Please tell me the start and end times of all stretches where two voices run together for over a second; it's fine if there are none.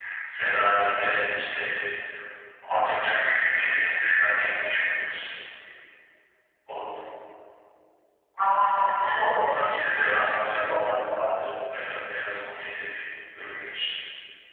9.2-10.6

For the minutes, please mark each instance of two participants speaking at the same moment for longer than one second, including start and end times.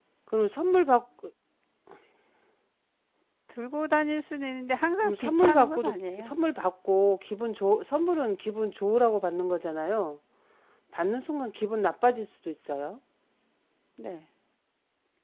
5.0-6.3

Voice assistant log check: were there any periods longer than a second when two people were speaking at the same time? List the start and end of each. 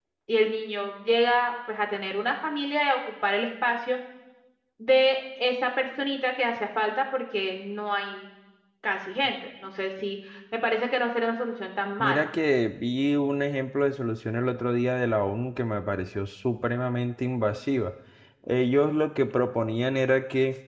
none

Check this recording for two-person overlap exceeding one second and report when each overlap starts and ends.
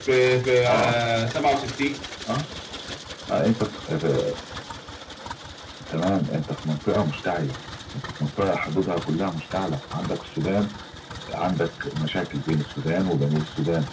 none

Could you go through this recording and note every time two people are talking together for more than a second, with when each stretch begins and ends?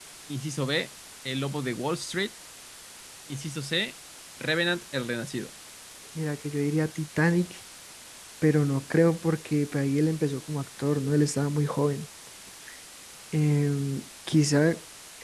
none

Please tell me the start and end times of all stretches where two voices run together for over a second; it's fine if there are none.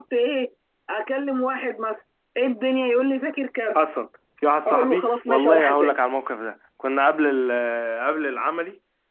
4.7-5.9

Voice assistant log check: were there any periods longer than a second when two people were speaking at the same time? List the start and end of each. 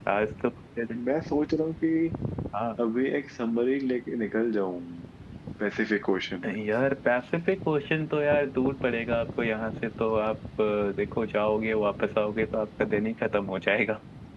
none

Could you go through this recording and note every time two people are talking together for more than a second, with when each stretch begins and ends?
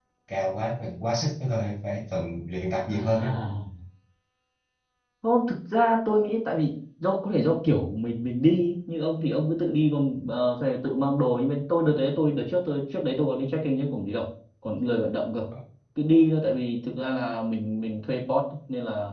none

